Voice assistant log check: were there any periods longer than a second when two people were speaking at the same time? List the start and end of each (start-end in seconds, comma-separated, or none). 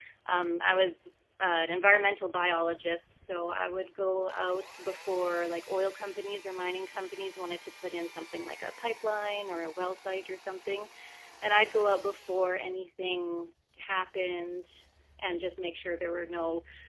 none